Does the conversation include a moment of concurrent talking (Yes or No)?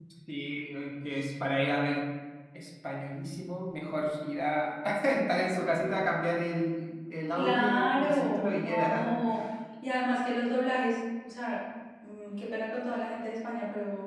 Yes